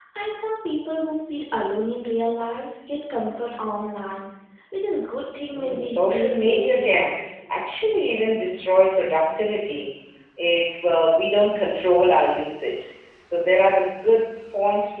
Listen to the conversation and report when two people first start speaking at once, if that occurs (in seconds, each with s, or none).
5.5 s